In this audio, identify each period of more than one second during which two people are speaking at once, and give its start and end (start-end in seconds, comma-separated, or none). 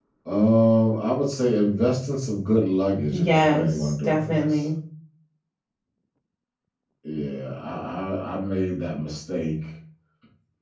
3.1-4.6